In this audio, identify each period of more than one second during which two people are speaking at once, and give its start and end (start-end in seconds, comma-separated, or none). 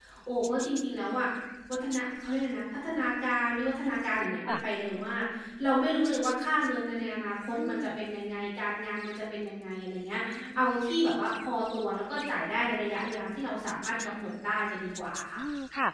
none